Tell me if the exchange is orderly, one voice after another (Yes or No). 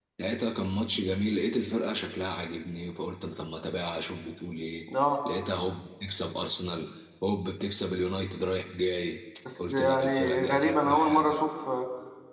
No